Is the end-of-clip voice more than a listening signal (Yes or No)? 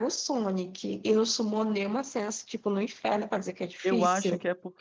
Yes